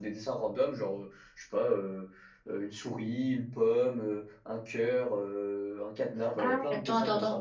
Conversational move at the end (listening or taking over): taking over